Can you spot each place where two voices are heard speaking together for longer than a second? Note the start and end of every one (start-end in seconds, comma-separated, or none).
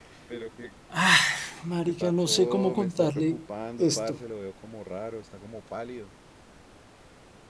2.0-3.4